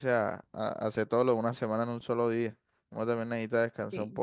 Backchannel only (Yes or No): No